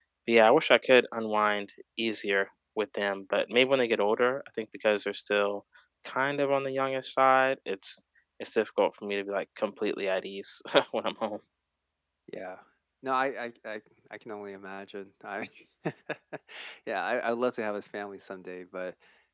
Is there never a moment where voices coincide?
Yes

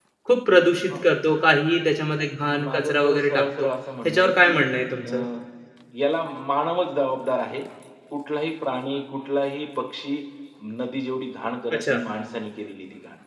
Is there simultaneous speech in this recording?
Yes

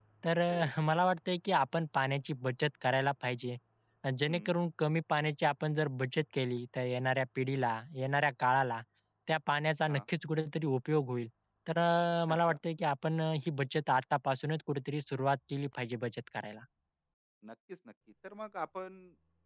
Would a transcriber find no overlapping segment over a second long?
Yes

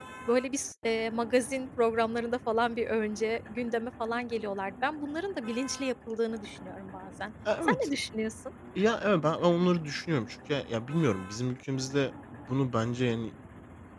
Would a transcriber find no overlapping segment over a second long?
Yes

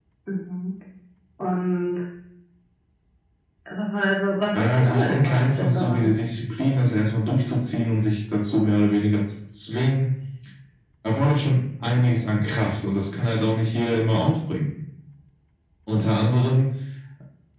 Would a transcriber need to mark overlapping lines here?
Yes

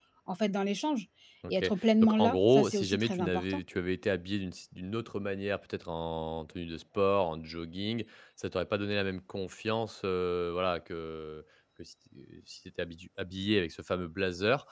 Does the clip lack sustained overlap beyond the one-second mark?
No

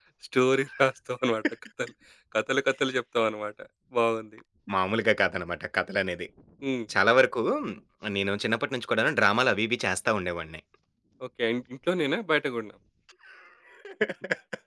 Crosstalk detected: No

